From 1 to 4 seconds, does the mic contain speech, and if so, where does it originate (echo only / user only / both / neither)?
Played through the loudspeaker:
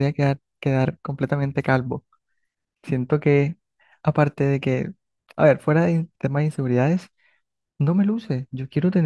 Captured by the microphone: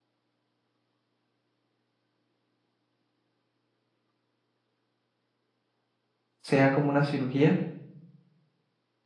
neither